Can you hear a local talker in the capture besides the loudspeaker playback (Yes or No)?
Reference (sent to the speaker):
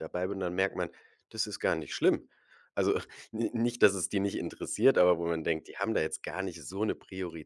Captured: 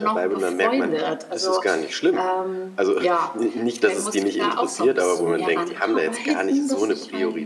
Yes